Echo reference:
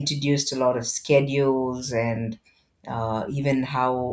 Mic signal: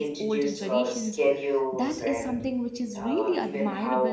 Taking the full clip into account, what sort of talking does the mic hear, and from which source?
both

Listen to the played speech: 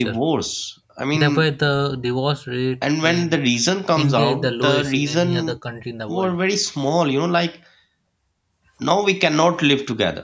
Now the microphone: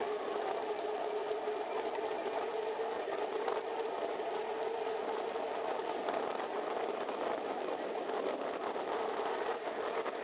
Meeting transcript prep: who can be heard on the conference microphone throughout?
neither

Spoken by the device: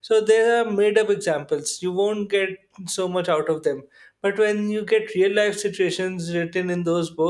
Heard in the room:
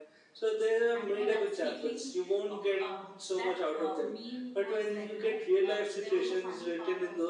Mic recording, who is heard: both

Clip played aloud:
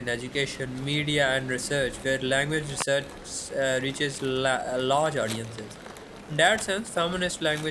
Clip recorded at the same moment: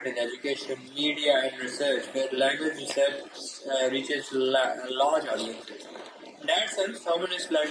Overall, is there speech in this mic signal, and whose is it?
echo only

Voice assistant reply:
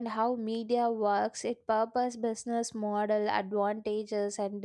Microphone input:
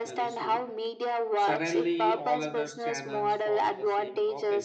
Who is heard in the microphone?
both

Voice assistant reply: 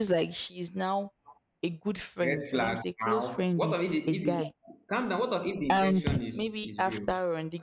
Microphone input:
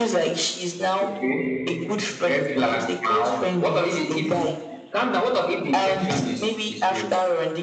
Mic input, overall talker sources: both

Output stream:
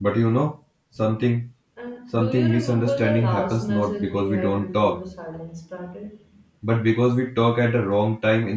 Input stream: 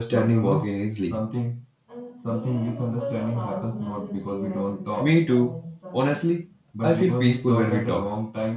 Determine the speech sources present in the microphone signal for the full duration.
both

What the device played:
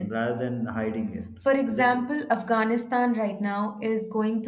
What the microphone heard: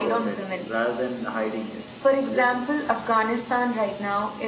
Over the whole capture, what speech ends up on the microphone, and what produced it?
echo only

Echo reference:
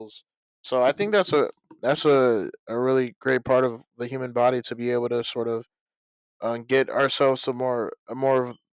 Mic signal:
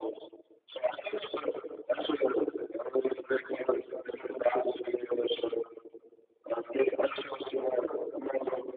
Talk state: echo only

